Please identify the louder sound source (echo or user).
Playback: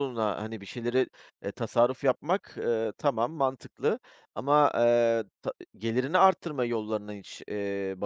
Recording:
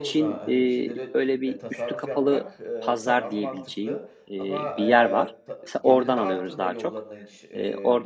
user